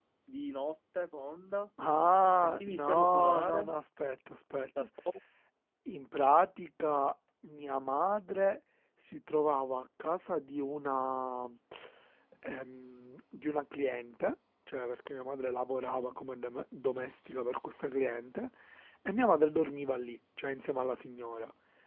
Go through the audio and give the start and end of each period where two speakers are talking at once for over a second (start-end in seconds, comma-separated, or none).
2.4-3.7